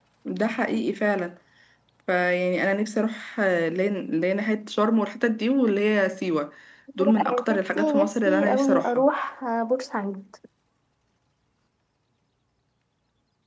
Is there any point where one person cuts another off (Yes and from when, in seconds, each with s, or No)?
Yes, from 7.0 s